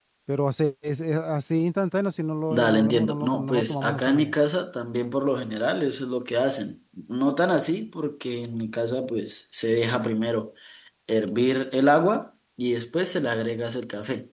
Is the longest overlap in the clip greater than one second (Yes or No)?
Yes